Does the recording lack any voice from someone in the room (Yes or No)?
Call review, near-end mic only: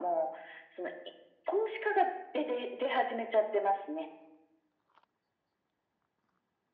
Yes